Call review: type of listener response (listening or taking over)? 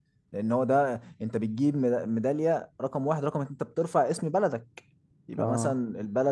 listening